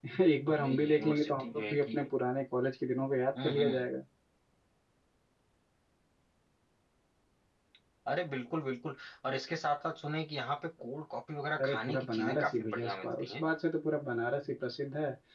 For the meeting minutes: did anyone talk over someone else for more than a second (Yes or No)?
Yes